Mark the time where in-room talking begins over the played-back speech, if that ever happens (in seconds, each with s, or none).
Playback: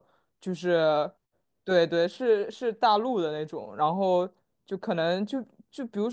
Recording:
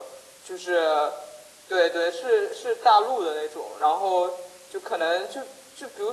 none